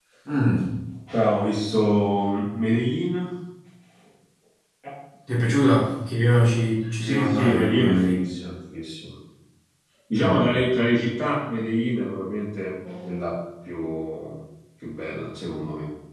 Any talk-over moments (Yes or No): Yes